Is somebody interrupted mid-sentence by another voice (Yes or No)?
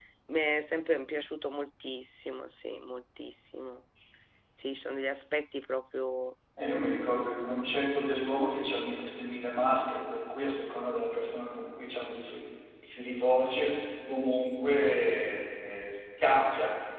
No